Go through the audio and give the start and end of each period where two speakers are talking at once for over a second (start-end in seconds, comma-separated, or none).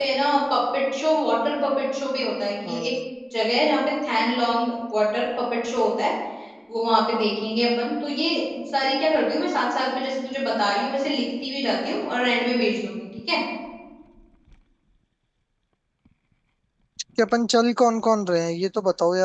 none